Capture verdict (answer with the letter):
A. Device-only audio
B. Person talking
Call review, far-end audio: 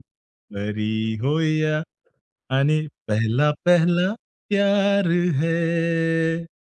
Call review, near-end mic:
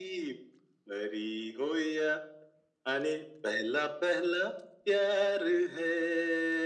A